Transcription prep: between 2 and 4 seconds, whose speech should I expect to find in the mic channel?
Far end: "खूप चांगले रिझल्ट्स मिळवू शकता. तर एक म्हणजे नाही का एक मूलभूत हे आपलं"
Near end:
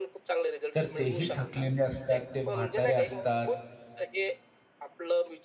both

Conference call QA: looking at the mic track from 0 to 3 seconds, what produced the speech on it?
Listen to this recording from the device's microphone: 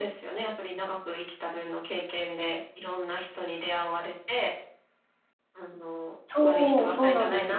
echo only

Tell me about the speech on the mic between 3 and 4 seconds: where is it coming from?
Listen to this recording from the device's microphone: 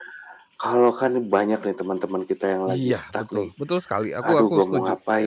both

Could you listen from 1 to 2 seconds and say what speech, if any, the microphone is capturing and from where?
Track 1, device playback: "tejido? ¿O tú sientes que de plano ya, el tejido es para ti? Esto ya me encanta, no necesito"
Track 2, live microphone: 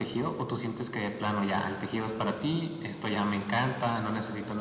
echo only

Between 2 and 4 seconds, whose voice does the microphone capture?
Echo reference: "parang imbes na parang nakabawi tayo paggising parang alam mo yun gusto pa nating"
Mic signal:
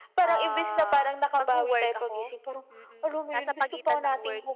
both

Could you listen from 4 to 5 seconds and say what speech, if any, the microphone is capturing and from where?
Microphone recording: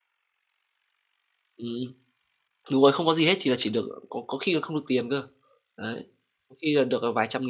user only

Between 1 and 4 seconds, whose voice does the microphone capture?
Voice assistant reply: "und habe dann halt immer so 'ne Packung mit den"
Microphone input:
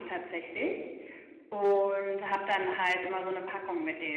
echo only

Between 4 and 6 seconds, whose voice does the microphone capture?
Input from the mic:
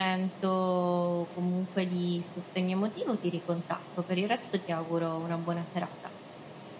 echo only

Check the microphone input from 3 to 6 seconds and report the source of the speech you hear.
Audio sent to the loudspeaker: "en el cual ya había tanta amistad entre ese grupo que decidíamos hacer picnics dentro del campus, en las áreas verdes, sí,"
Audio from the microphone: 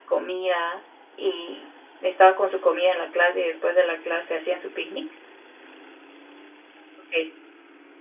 user only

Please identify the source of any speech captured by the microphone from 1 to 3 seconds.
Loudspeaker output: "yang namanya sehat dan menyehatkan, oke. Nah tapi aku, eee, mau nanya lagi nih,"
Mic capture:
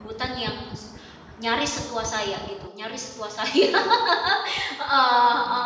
user only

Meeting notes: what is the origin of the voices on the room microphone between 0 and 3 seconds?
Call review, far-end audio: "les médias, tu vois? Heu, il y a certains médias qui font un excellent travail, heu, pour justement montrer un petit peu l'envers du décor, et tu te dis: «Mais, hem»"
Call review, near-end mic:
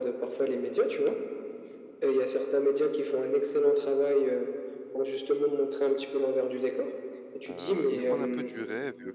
echo only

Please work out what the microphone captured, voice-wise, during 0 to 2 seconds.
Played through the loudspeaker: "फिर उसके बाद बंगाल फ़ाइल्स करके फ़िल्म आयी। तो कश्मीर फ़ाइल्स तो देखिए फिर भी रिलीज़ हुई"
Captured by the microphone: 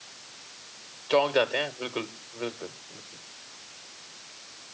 user only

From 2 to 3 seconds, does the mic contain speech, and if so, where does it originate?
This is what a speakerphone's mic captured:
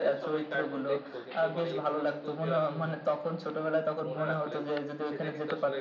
both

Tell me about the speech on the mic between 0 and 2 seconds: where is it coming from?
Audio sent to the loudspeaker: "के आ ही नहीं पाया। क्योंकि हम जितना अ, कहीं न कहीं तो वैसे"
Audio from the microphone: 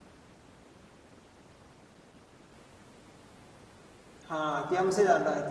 neither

